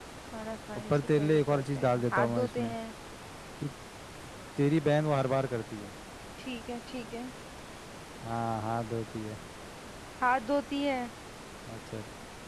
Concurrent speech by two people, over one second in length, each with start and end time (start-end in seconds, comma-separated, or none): 0.9-2.7